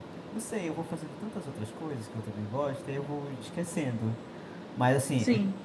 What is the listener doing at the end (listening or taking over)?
listening